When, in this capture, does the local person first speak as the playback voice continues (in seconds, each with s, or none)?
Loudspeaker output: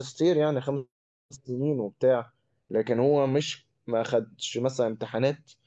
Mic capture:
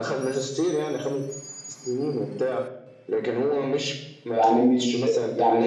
4.3 s